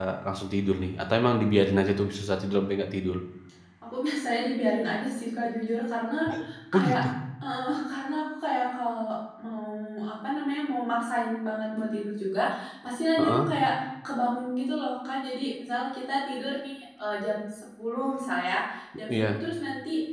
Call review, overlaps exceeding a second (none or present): none